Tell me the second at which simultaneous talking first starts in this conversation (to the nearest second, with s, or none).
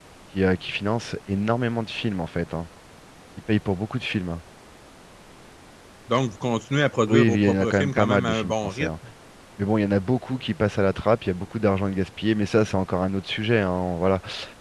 7 s